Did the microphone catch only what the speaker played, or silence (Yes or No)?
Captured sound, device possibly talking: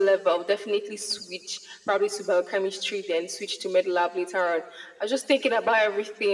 Yes